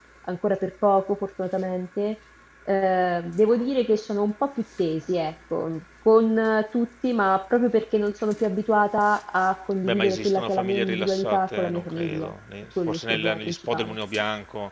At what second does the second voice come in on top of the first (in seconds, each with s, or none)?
9.8 s